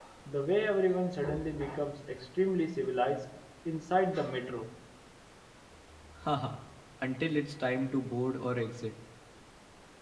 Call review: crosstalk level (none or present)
none